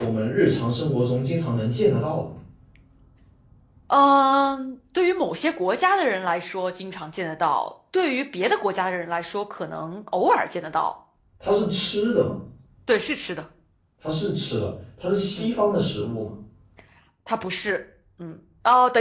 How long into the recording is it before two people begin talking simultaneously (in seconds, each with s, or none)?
none